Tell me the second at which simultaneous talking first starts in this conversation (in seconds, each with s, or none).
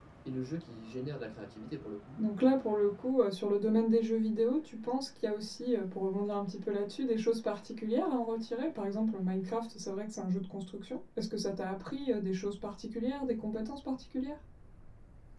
none